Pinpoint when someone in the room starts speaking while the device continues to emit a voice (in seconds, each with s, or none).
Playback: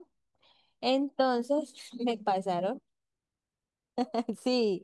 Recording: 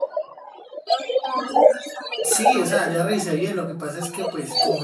2.2 s